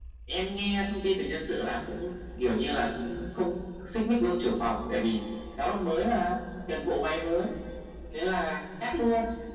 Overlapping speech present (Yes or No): No